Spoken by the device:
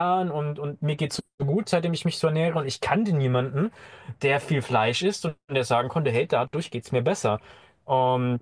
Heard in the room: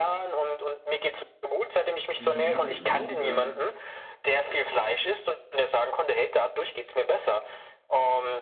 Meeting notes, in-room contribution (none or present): present